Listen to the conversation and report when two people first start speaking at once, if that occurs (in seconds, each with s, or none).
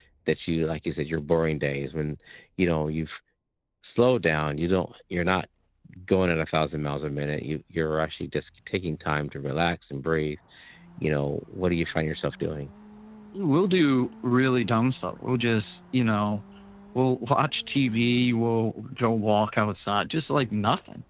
none